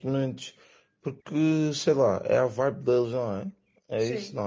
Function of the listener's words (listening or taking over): taking over